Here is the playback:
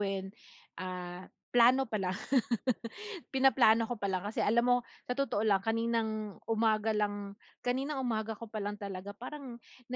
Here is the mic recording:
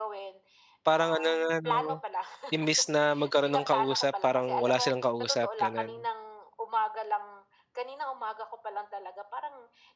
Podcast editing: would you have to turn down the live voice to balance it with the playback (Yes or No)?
Yes